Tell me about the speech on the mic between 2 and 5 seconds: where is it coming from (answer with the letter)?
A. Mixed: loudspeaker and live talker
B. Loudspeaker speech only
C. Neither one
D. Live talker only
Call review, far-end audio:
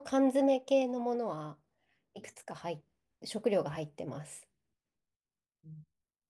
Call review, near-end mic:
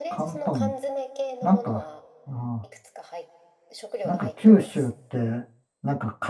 A